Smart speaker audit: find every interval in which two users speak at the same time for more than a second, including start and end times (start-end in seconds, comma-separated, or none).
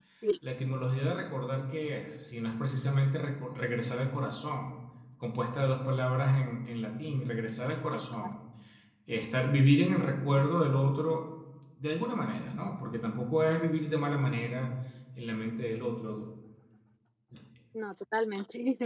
none